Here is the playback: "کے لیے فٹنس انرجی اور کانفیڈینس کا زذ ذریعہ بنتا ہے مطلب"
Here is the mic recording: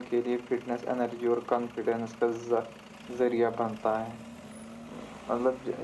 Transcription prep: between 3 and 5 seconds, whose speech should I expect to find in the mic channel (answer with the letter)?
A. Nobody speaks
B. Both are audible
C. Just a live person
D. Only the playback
D